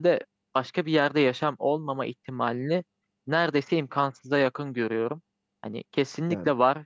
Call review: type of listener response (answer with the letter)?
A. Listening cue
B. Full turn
A